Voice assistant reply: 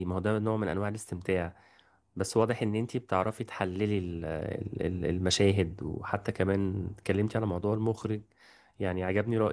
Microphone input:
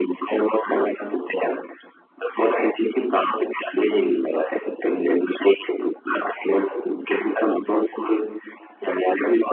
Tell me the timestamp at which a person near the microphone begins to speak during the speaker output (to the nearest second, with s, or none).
none